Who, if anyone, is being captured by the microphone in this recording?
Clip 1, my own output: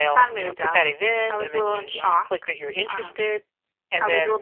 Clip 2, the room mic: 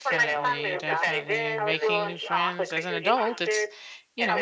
both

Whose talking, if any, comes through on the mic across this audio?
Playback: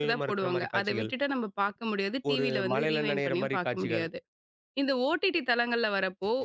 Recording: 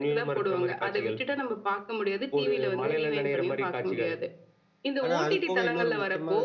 both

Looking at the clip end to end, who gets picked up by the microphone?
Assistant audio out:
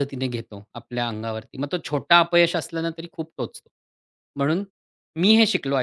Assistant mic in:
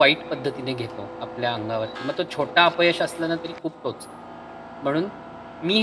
echo only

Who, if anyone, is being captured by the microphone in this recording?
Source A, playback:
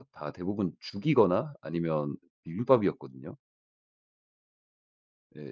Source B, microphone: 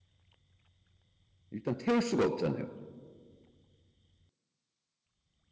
user only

